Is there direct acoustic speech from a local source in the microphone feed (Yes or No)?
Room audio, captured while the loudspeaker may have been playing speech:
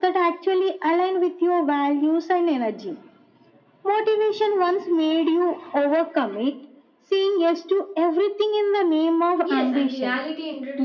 Yes